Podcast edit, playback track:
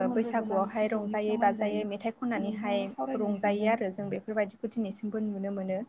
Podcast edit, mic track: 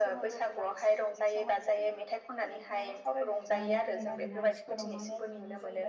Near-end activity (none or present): present